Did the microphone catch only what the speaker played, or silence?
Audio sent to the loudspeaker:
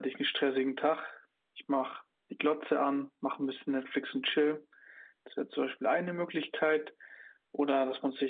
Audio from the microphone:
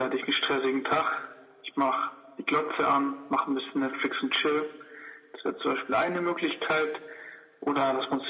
Yes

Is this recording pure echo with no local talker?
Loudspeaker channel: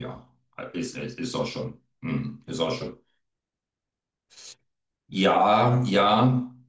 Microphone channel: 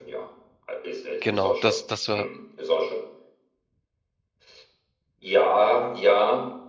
No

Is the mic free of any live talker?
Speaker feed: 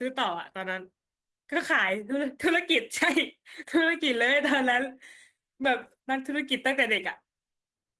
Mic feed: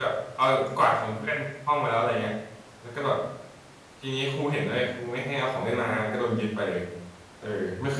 No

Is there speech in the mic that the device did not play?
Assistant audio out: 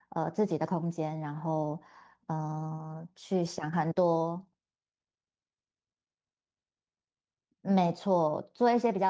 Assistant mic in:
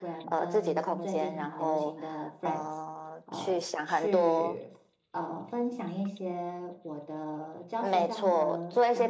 Yes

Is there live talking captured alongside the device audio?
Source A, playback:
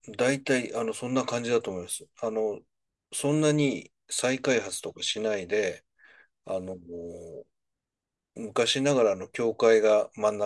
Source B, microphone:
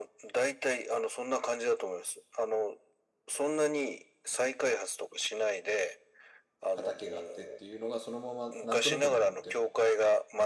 Yes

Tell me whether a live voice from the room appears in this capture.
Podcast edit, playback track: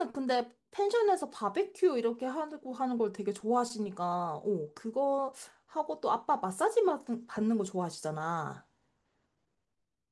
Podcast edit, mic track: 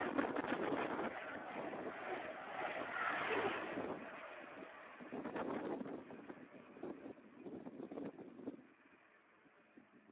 No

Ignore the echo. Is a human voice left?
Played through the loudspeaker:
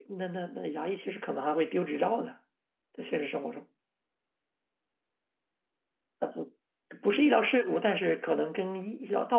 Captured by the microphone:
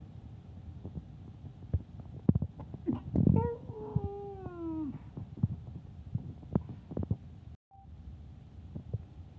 No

